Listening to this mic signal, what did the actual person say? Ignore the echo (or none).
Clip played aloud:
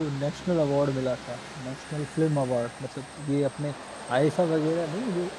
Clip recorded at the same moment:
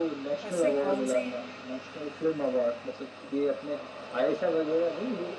ऐसी कौन सी